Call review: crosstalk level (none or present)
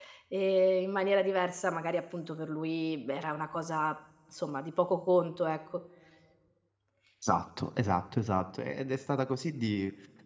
none